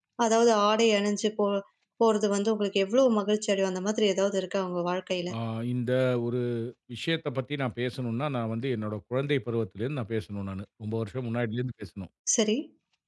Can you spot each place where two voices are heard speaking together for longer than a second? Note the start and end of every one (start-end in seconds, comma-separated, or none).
none